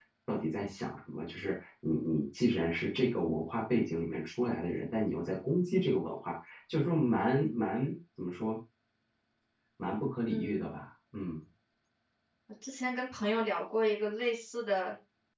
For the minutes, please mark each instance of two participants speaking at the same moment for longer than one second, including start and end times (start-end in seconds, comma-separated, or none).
none